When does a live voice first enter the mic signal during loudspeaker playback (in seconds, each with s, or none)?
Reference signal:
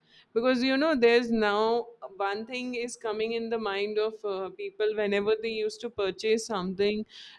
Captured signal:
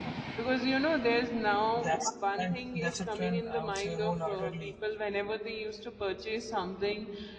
1.8 s